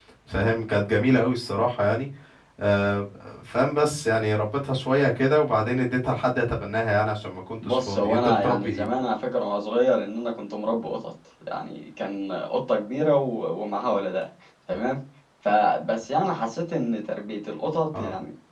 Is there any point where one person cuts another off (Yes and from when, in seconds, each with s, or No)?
Yes, from 7.6 s